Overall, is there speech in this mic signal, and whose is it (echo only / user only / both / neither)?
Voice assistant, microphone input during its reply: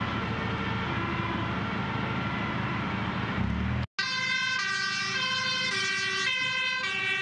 neither